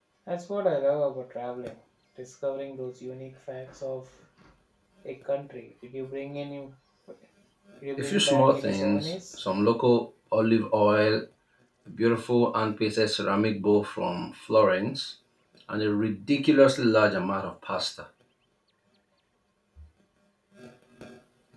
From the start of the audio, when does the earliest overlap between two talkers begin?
8.0 s

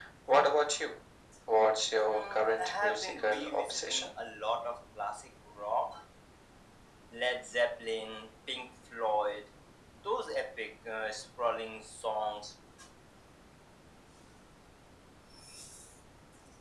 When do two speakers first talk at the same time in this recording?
2.0 s

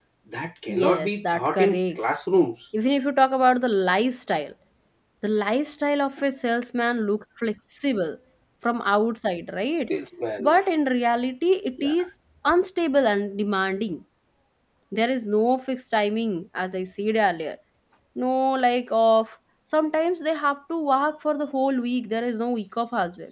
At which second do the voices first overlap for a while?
0.7 s

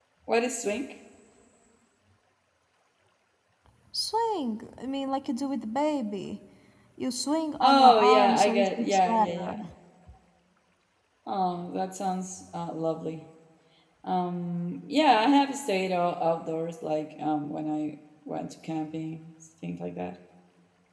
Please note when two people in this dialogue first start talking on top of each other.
7.6 s

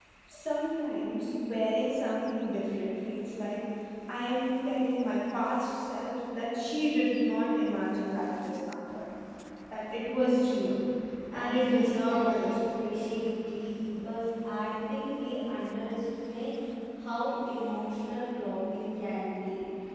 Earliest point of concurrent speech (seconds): 11.3 s

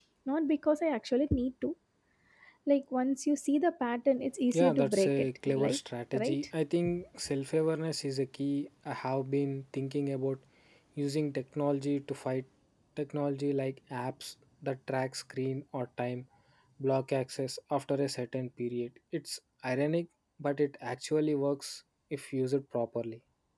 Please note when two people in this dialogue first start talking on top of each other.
4.5 s

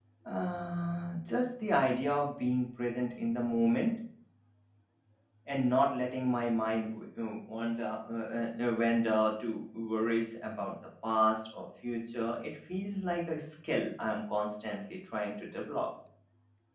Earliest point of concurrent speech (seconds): none

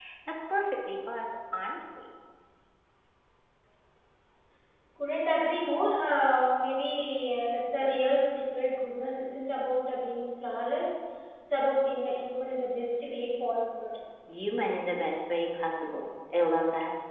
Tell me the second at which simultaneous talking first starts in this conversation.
none

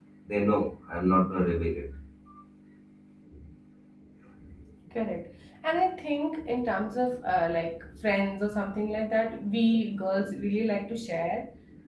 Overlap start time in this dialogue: none

